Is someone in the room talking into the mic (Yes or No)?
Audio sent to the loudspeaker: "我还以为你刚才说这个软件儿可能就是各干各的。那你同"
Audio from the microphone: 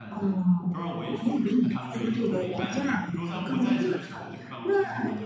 Yes